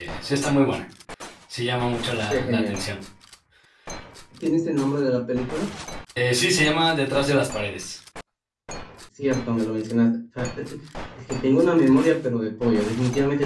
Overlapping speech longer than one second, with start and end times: none

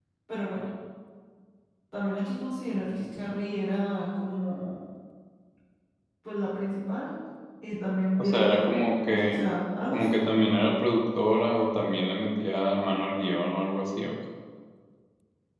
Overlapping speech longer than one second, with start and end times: 8.2-9.5

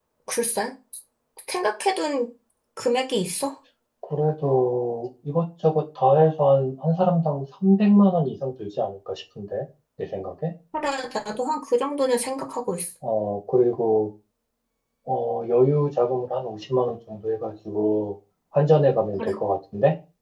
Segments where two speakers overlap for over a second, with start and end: none

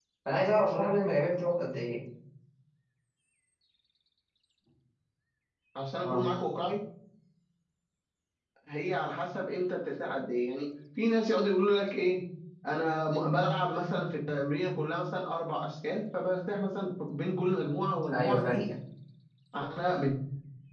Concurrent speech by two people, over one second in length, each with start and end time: none

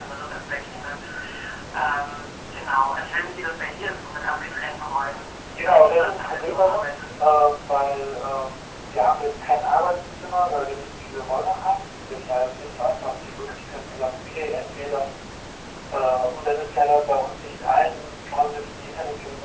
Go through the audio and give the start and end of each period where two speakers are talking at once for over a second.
5.6-7.1

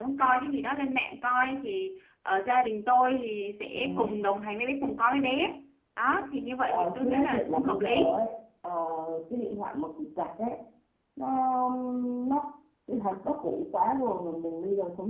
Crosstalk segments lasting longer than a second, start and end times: 6.7-8.2

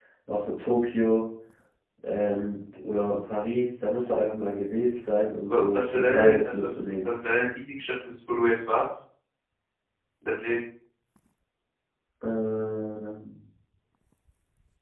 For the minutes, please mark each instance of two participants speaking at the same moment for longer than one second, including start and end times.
5.5-7.1

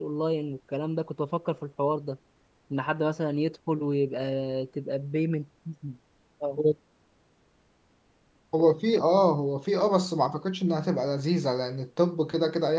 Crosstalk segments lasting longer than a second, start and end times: none

